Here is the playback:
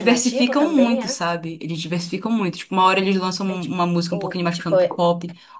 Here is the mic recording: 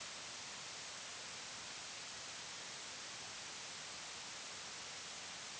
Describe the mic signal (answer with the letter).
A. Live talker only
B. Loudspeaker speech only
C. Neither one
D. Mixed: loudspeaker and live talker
C